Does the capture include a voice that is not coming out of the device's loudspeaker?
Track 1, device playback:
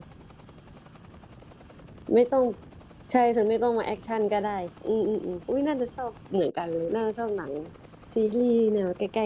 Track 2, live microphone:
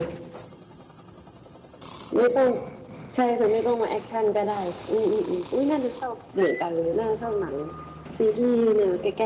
No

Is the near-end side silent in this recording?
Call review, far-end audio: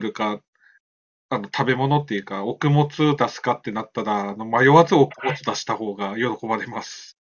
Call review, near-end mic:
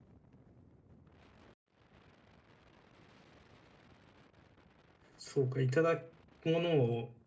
No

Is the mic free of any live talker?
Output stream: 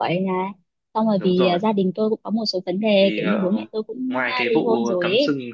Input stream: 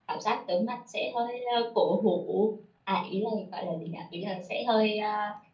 No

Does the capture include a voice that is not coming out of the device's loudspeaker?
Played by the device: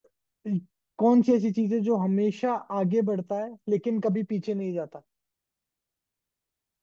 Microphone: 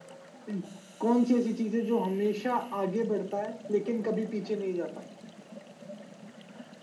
No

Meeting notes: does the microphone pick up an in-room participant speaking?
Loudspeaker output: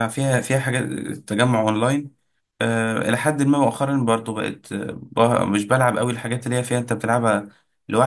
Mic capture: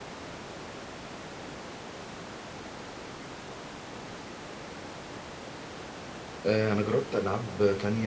Yes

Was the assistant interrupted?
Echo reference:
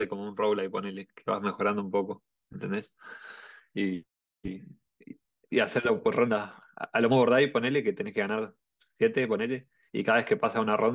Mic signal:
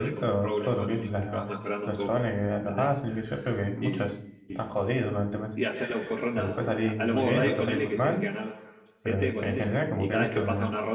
Yes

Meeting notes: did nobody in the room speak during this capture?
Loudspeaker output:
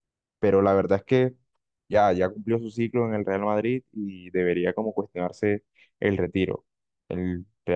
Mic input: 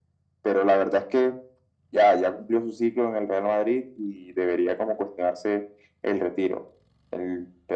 Yes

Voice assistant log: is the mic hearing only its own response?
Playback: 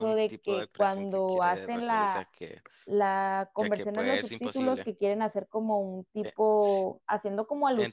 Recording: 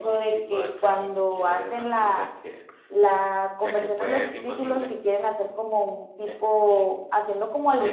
Yes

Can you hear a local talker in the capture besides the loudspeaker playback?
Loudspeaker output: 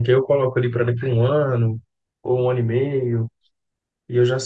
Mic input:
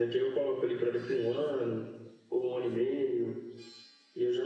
No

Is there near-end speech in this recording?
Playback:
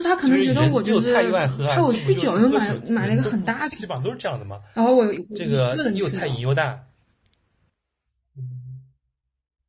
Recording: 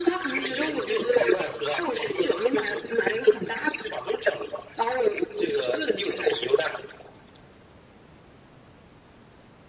No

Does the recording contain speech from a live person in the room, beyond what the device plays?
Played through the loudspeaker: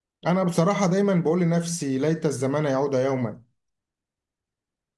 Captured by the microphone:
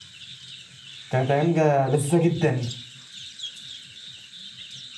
Yes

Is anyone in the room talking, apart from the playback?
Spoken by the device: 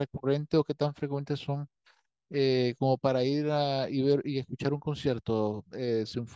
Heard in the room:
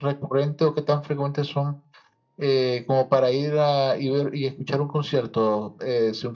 No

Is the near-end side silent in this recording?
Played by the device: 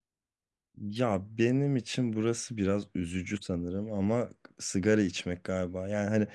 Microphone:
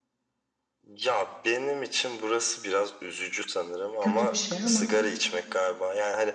No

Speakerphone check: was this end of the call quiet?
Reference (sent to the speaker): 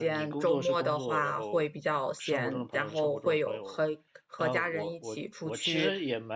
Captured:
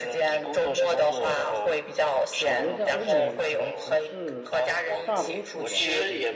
No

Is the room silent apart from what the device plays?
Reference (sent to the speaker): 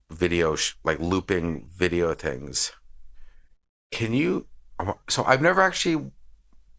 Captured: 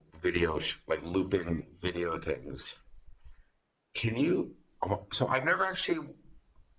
Yes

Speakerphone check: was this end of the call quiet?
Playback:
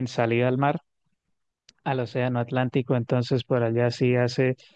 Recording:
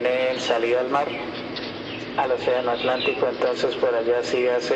Yes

